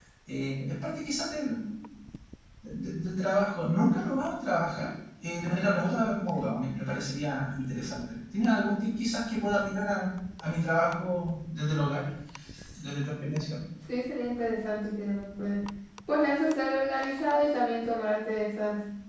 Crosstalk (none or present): none